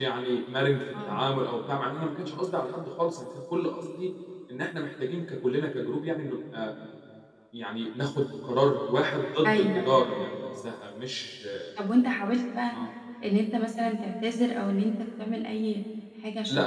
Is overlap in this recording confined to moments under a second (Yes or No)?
Yes